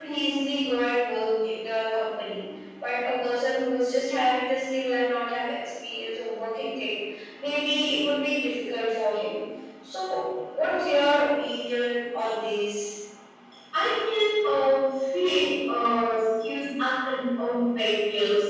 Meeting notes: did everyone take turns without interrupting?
Yes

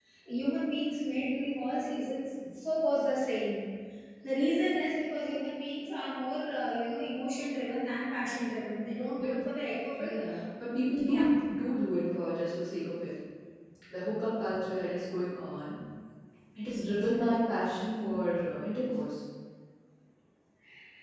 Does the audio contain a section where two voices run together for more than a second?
No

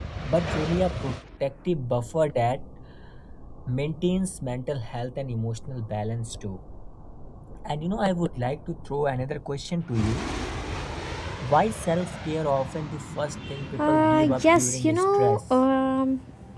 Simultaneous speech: Yes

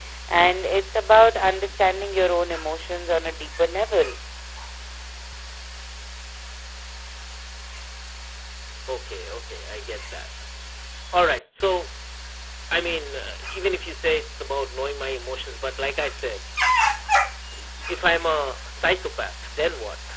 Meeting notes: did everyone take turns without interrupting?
Yes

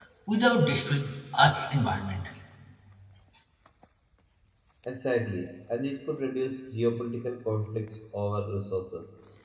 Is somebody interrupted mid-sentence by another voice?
No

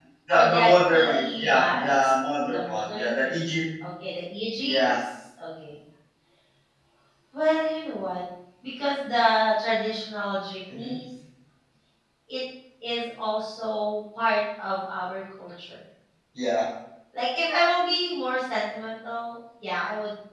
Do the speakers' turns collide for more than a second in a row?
Yes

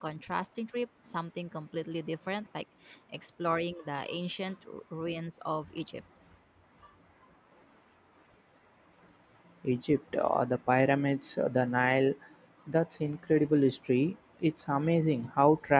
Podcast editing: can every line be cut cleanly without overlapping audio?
Yes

